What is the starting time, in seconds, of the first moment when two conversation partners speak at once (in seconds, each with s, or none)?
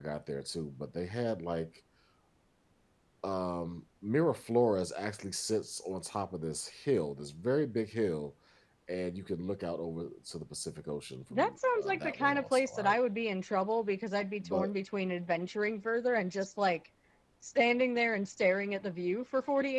11.3 s